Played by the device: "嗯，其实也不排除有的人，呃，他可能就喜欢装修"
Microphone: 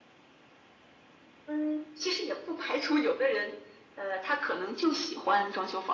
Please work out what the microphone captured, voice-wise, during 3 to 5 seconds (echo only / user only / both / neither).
echo only